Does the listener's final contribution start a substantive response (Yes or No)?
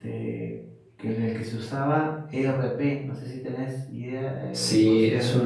Yes